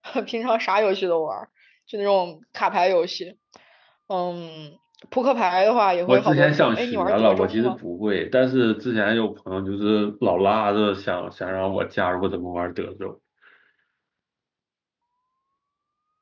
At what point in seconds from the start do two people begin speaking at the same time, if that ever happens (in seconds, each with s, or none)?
6.1 s